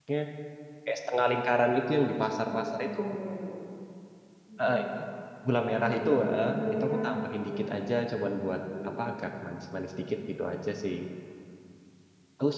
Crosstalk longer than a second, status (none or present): present